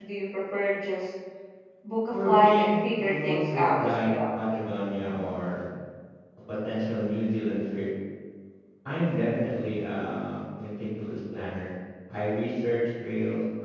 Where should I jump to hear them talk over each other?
2.1 s

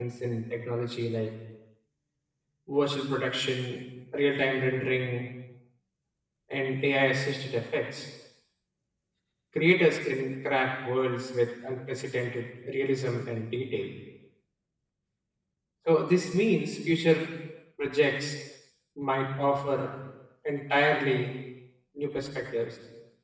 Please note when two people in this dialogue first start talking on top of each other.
none

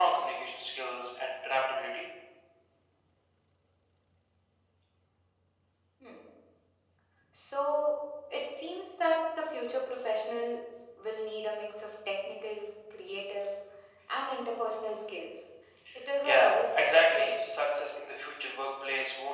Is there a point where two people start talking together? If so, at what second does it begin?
16.2 s

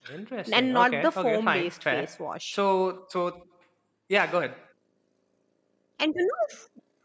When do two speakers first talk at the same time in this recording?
0.5 s

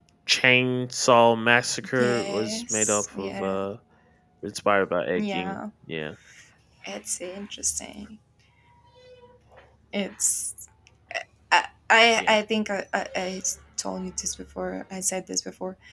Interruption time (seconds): 2.0 s

